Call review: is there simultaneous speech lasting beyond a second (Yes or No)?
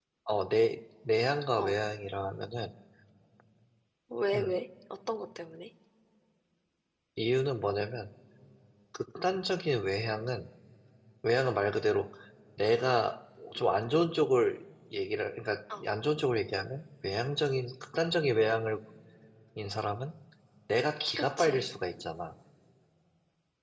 No